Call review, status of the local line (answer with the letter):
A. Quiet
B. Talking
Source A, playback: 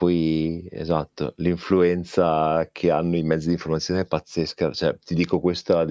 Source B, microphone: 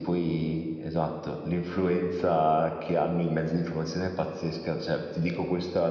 A